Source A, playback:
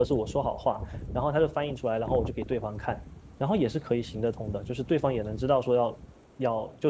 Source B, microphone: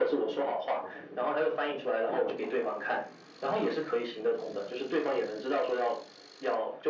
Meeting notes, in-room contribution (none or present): none